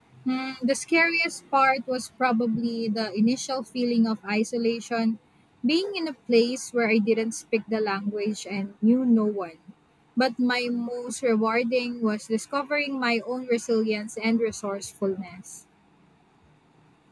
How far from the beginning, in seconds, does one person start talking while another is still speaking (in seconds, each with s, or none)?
none